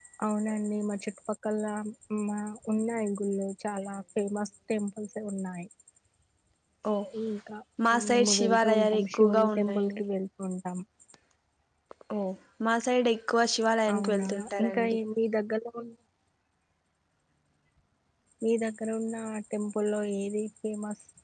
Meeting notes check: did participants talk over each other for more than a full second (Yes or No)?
Yes